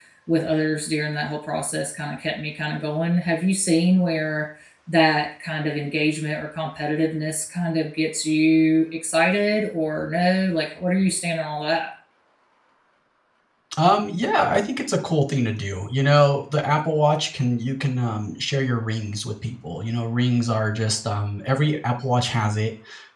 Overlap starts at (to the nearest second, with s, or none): none